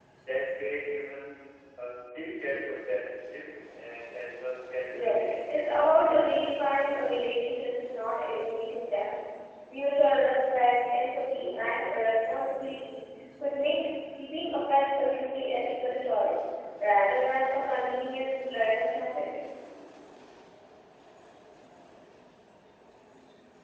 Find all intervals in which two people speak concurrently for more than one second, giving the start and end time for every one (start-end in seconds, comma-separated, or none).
4.9-6.5